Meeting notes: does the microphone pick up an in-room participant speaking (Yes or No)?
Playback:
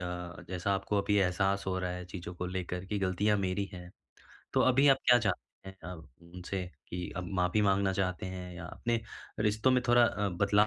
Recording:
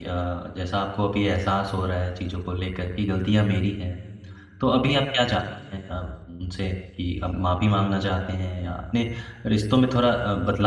No